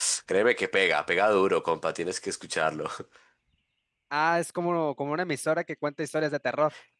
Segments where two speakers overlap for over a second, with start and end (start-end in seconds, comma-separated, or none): none